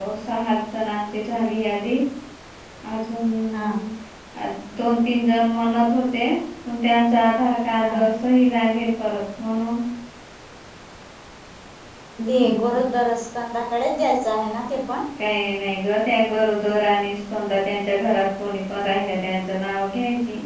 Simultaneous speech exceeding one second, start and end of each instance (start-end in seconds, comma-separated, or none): none